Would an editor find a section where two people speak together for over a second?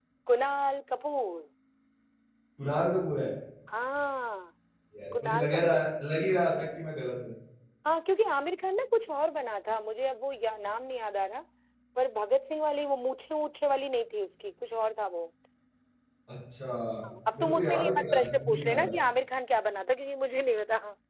Yes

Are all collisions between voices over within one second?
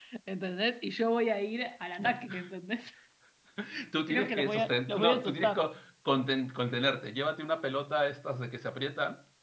No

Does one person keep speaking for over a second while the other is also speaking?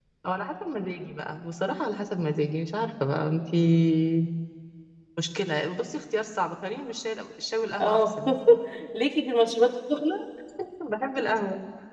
No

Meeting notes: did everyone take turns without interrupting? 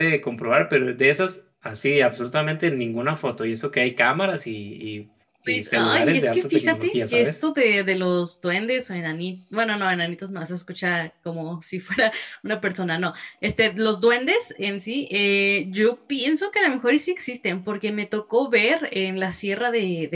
No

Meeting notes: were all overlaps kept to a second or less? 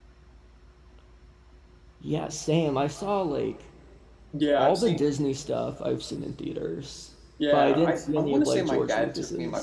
No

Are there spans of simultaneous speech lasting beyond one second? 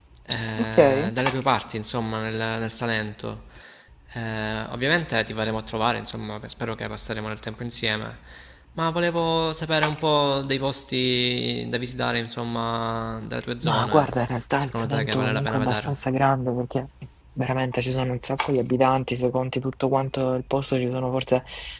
Yes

